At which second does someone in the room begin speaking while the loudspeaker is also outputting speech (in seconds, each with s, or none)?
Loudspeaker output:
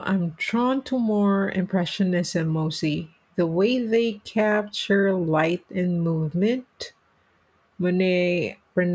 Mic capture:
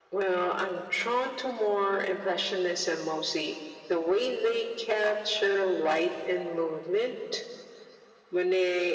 none